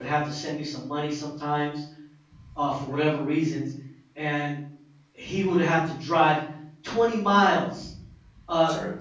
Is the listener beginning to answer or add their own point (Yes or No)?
No